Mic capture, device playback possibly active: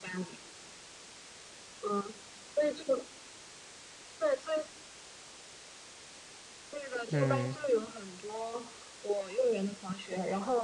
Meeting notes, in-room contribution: present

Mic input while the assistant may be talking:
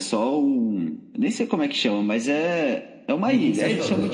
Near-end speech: present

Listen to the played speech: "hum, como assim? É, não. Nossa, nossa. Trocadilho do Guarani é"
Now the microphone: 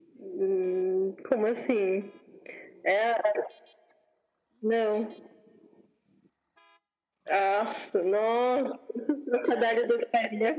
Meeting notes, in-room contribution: none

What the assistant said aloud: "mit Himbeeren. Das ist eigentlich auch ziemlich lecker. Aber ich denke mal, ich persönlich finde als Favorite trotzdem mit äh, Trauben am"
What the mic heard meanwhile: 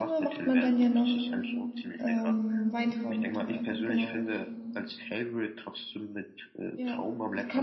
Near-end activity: present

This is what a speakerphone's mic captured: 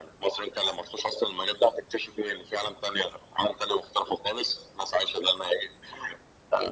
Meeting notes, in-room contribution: none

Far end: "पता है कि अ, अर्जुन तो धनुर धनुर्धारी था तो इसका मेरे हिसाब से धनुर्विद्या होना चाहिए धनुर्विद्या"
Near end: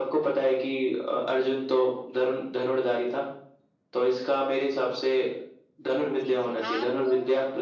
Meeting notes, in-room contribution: present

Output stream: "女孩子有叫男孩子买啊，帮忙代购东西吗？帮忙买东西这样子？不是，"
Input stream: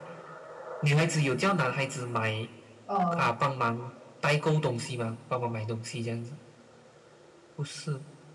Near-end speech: present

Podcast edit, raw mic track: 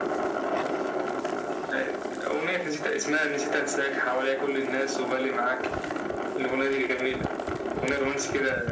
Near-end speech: none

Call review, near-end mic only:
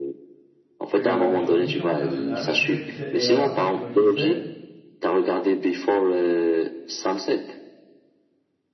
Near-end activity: present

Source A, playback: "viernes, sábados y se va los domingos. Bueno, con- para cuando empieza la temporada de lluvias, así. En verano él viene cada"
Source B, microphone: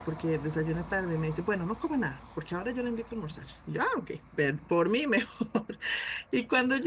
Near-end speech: present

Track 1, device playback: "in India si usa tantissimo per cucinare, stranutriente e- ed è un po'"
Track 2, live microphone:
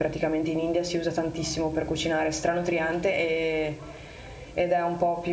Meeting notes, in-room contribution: none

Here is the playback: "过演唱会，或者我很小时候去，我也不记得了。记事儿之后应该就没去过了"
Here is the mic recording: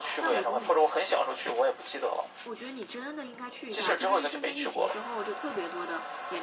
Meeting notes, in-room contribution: present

